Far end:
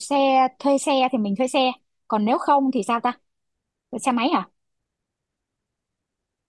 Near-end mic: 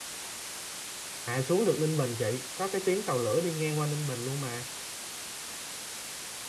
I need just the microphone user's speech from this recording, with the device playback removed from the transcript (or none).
à xuống được Ninh Bình chị có cái tuyến tàu lửa đi ngang qua Ninh Bình luôn mà